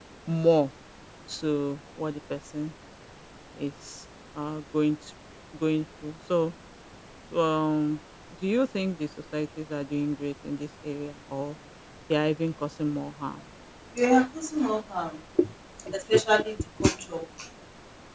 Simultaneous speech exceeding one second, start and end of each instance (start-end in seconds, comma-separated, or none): none